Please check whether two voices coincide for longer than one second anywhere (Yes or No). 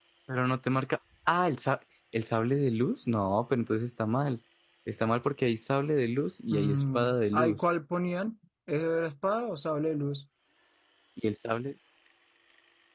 Yes